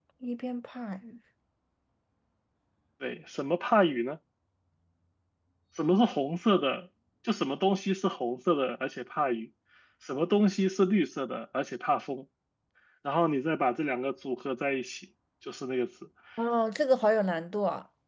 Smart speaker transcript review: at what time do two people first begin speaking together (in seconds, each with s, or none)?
none